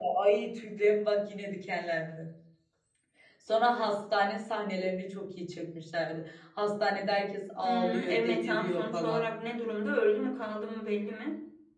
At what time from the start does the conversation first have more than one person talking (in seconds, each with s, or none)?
7.6 s